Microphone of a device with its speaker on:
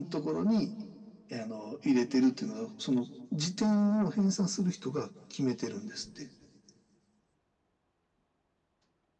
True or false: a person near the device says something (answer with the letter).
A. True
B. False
B